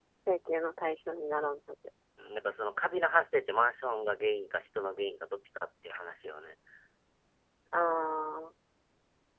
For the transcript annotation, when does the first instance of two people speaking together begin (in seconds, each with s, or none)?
none